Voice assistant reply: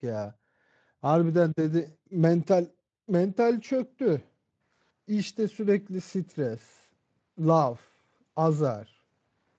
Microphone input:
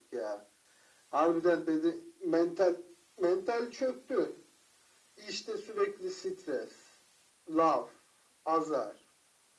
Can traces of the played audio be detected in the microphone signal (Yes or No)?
Yes